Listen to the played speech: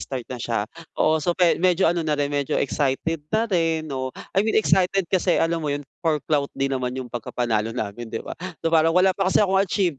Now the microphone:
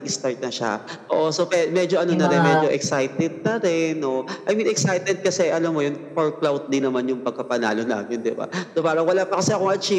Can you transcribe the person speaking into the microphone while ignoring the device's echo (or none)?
yung mga